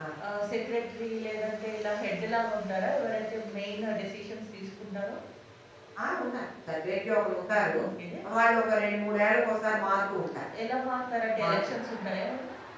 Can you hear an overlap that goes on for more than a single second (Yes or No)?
No